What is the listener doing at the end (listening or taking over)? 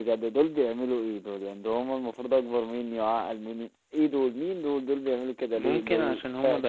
taking over